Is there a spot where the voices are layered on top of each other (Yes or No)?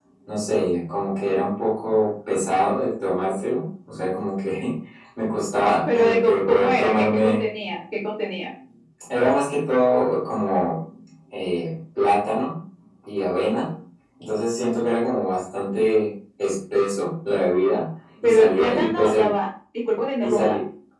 Yes